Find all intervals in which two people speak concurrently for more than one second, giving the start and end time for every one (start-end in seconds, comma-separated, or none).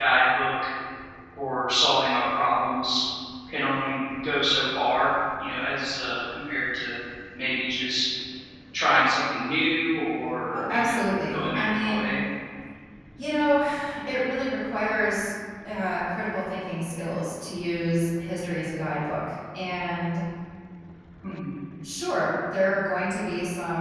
10.5-12.1